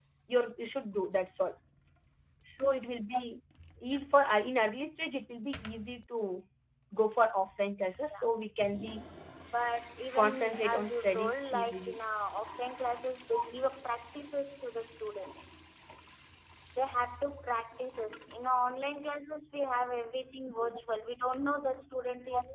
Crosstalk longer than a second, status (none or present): present